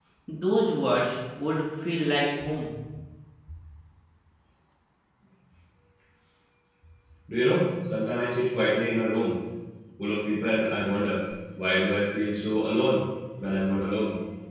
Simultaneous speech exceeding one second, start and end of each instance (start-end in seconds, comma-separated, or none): none